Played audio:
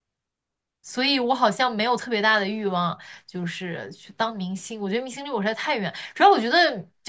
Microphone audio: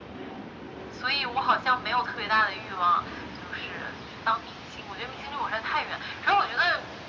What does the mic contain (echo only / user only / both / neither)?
echo only